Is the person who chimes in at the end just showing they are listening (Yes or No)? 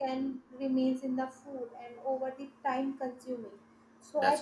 Yes